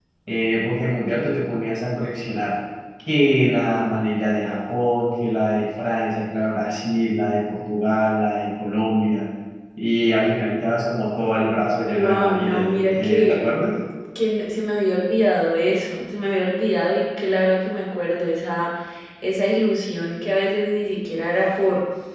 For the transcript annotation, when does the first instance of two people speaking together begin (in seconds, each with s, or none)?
11.8 s